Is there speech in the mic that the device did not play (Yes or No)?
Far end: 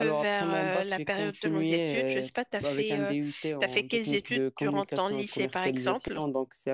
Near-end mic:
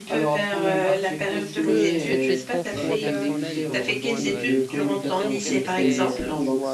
Yes